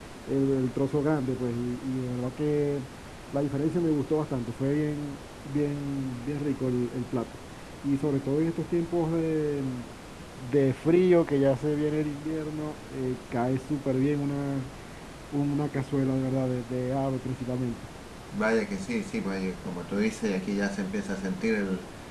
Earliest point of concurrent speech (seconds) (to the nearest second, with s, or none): none